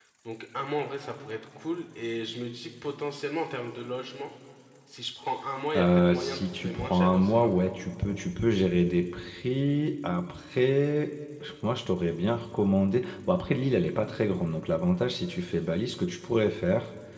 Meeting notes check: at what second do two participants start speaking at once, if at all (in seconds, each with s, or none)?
5.7 s